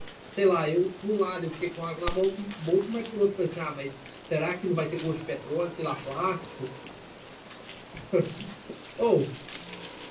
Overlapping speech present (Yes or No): No